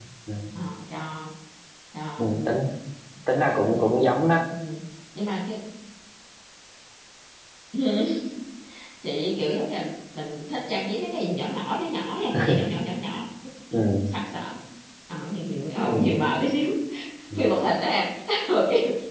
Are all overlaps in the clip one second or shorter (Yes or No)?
Yes